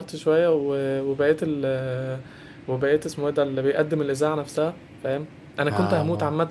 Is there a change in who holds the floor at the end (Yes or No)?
No